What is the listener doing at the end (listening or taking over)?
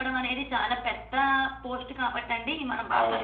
taking over